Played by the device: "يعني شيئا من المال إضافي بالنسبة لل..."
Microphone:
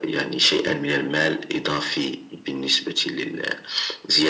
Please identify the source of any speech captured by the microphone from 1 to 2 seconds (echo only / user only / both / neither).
echo only